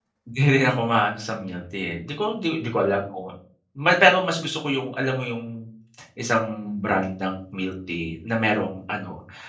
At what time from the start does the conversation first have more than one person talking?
none

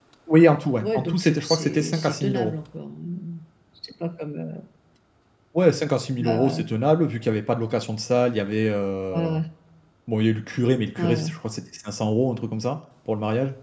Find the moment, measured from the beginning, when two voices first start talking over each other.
0.8 s

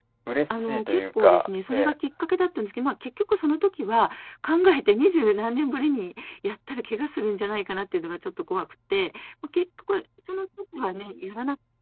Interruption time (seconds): 0.5 s

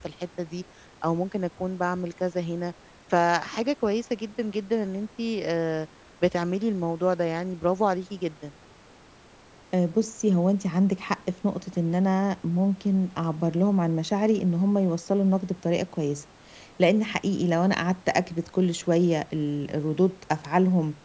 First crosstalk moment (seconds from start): none

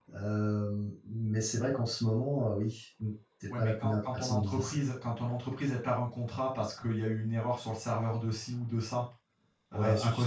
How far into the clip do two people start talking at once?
3.6 s

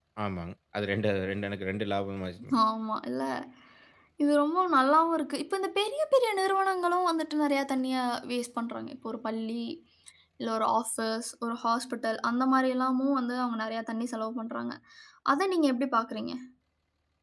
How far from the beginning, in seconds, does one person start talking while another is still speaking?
none

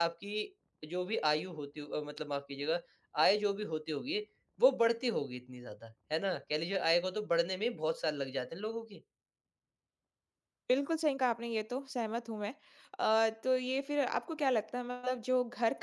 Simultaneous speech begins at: none

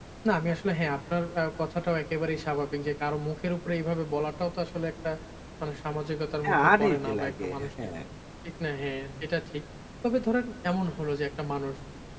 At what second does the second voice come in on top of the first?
6.4 s

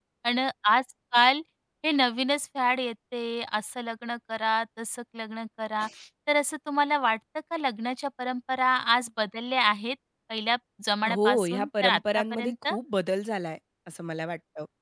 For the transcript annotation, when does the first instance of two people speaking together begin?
11.0 s

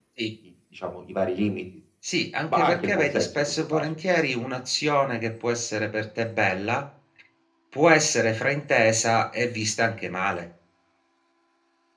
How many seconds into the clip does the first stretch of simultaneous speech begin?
2.5 s

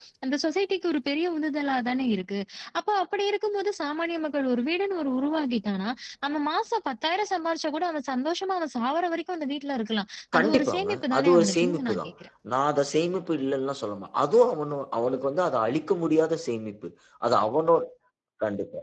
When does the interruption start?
10.3 s

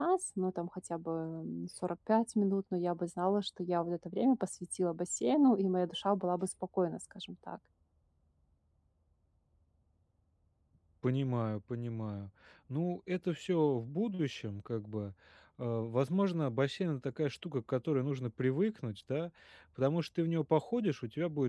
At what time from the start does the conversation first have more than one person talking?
none

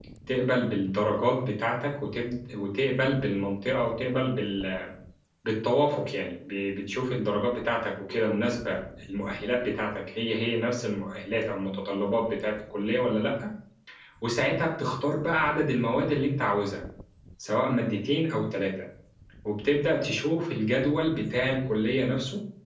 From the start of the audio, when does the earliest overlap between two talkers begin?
none

